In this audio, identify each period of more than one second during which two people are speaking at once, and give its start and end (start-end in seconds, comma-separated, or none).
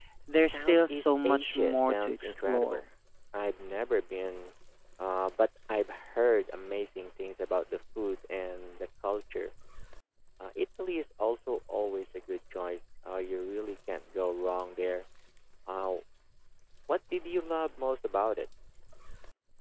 0.5-2.8